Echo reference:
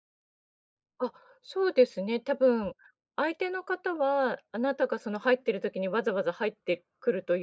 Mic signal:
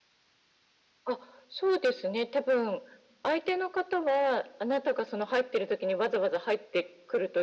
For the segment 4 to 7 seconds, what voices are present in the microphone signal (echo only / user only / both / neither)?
echo only